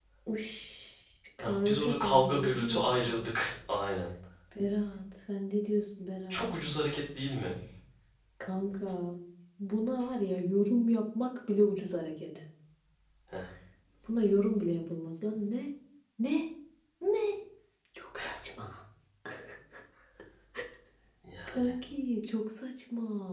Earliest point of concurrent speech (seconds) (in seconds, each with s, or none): 1.4 s